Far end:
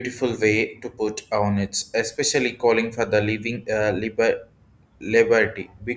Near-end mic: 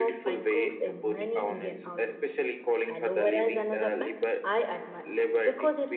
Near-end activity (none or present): present